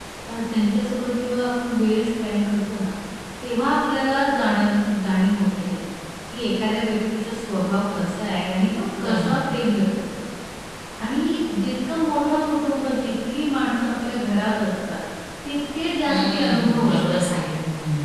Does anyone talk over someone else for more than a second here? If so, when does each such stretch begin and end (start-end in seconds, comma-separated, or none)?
16.1-17.4